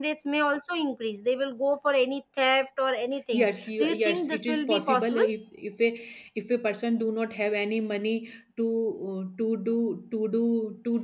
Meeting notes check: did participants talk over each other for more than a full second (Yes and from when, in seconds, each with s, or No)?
Yes, from 3.3 s